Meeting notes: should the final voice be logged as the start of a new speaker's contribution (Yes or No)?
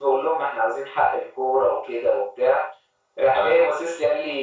No